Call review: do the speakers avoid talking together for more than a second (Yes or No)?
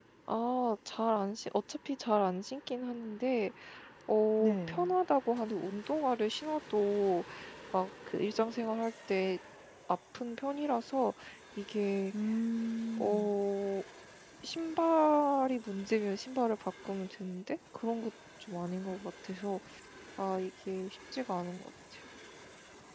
Yes